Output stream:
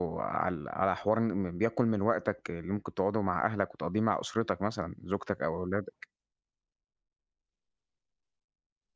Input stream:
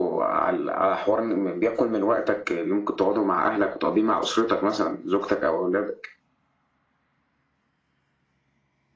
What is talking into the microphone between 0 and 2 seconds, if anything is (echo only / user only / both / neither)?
echo only